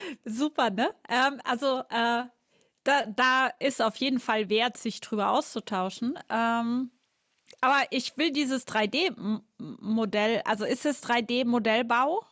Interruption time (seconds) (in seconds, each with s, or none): none